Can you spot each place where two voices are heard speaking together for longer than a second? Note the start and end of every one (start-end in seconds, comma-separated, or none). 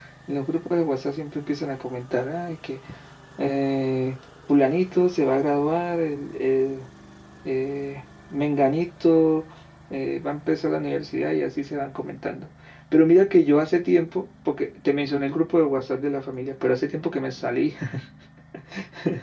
none